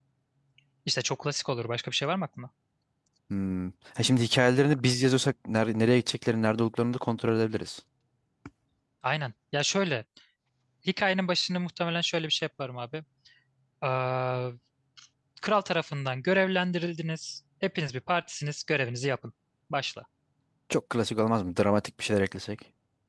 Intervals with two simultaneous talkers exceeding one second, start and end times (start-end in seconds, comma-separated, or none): none